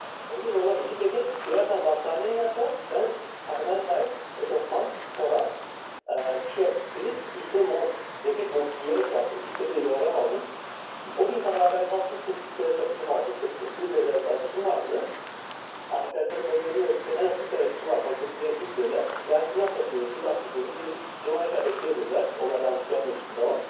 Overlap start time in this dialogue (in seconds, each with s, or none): none